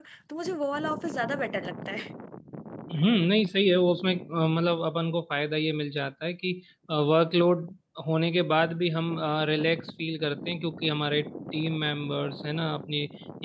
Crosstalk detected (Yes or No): No